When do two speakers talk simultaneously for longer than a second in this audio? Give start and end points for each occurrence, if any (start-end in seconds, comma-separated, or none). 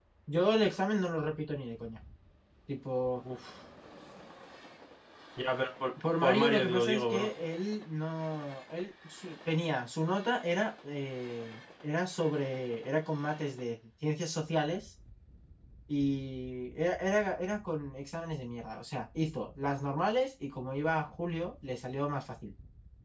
6.0-7.3